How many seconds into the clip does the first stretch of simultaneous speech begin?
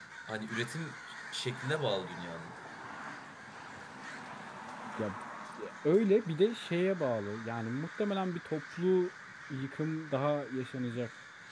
none

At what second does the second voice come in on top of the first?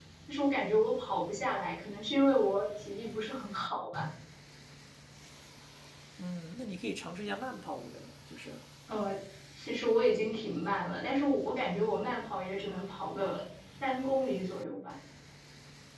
none

